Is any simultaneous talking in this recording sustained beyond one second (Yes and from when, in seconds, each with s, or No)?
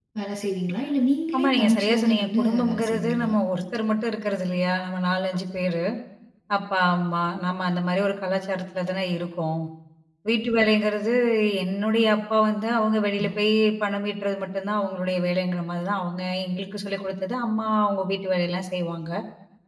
Yes, from 1.3 s